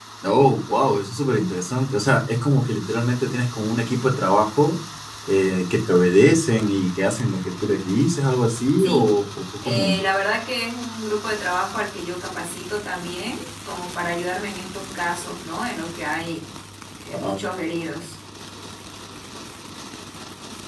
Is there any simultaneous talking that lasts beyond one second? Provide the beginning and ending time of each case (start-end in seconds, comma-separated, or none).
none